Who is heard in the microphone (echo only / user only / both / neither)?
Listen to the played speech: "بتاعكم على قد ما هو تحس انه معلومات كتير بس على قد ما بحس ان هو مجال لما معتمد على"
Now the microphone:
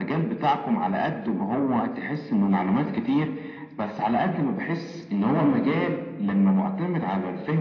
echo only